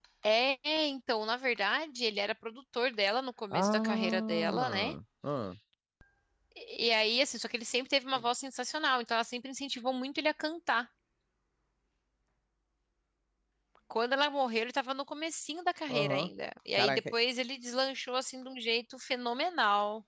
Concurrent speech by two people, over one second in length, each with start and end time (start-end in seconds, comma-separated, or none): 3.5-4.9